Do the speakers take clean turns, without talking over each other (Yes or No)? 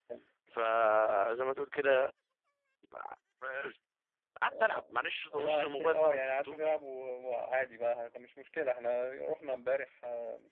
No